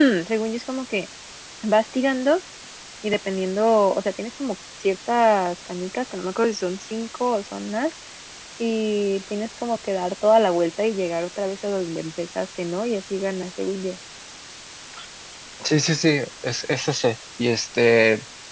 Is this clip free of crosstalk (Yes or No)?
Yes